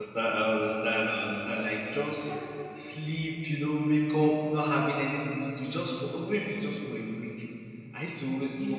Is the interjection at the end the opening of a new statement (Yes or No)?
No